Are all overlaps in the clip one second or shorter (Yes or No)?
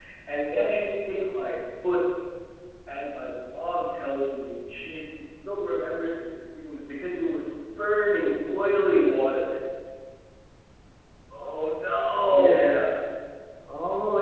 Yes